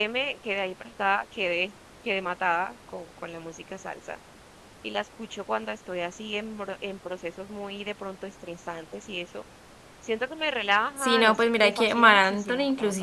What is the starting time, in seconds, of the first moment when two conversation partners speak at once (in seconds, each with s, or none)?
11.0 s